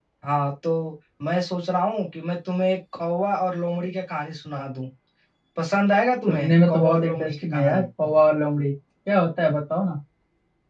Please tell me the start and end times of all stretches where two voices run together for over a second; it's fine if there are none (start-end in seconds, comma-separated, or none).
6.3-7.8